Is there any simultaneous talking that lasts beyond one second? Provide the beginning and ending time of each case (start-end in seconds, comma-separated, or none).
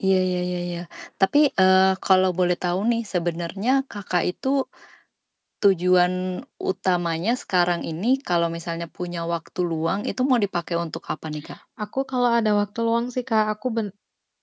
none